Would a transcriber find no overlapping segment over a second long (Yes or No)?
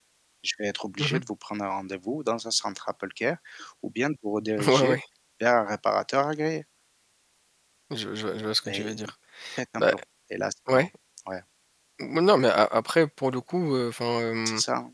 Yes